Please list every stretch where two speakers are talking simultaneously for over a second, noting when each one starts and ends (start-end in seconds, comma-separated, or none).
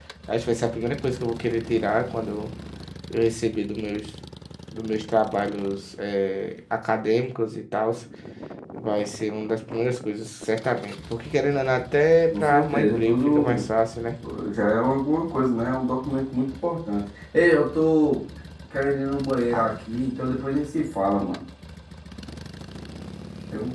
12.3-13.6